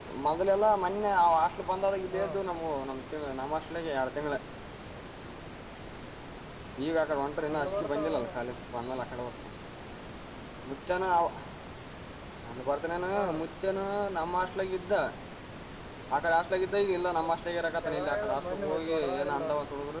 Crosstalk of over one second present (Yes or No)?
Yes